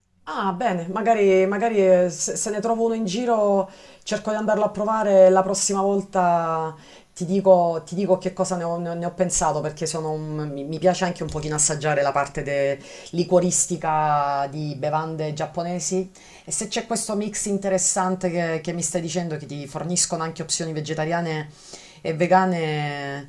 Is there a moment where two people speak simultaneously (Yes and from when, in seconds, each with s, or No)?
No